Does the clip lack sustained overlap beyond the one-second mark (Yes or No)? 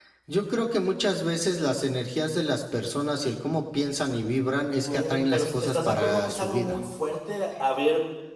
No